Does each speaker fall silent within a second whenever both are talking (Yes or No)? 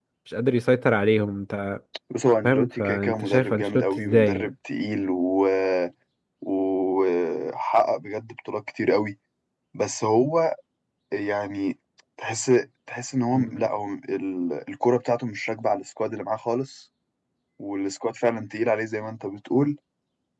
No